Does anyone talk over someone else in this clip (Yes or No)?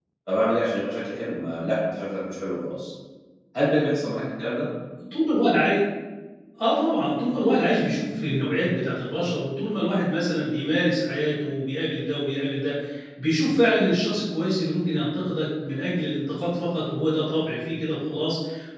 No